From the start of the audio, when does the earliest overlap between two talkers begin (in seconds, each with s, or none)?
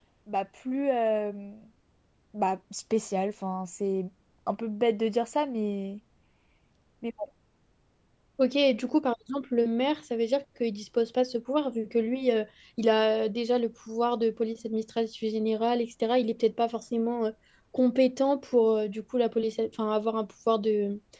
none